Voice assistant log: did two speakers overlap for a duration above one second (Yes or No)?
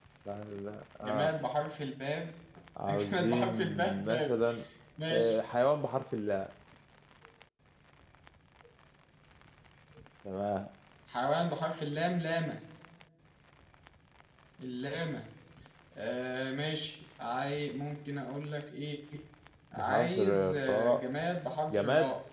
Yes